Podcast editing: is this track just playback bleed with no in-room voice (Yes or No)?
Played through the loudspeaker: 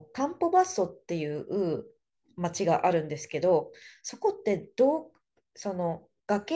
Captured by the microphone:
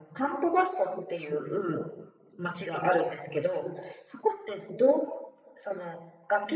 Yes